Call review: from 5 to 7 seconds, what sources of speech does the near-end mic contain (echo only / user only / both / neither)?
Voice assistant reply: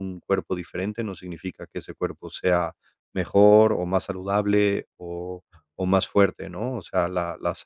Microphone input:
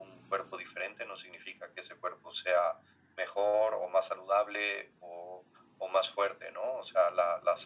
echo only